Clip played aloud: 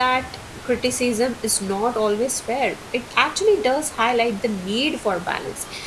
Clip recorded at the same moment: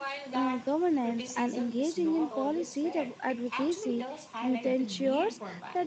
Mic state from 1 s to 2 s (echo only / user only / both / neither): both